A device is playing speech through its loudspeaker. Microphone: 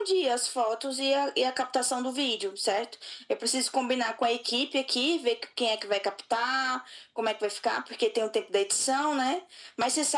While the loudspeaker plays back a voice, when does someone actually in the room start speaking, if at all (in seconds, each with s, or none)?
none